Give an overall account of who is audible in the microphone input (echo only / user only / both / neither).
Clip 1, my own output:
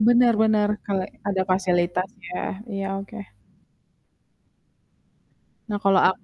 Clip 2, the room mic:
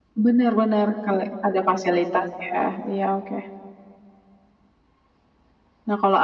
echo only